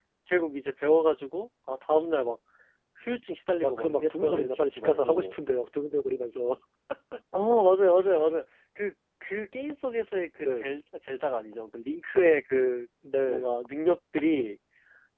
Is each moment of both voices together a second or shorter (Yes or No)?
No